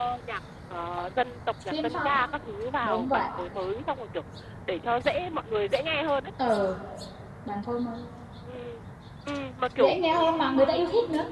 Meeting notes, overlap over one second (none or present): none